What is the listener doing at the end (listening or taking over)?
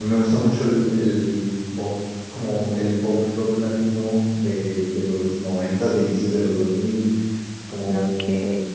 listening